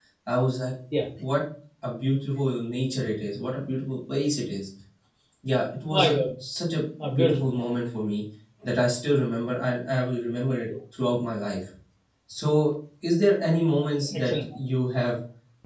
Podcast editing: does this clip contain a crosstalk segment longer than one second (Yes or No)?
No